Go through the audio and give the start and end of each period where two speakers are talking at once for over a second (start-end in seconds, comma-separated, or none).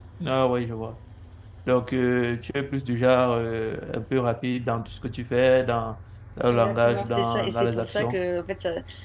6.5-8.2